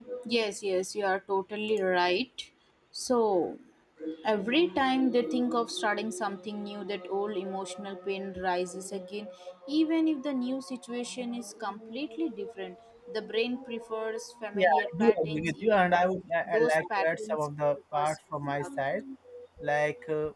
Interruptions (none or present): present